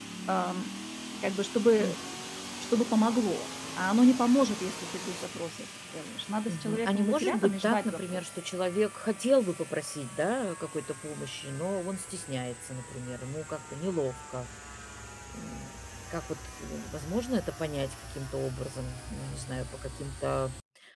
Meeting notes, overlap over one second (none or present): present